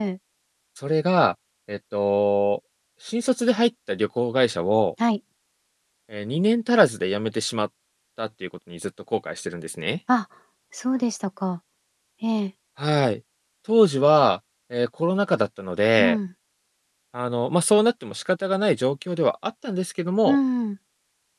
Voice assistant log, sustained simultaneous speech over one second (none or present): none